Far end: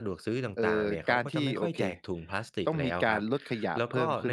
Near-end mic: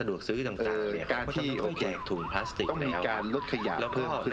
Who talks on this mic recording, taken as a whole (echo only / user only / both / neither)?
echo only